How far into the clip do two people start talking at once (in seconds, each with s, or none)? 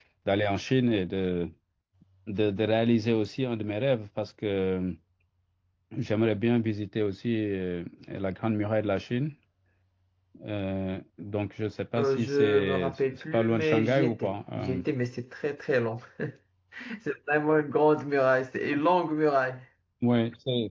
12.0 s